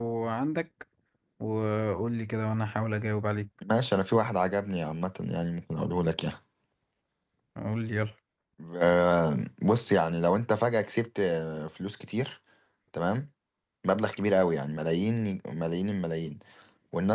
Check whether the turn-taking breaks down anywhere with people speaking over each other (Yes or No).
No